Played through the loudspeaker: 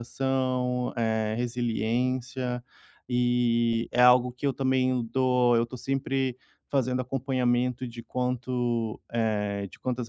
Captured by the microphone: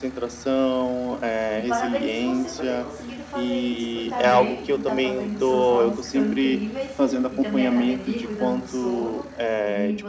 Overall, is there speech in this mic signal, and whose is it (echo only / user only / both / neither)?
both